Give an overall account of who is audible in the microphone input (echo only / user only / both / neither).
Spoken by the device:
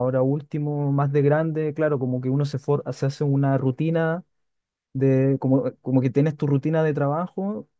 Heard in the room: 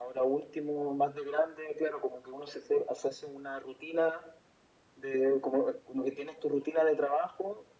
echo only